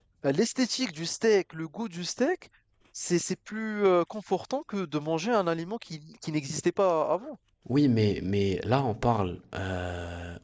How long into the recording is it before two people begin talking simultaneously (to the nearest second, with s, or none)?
none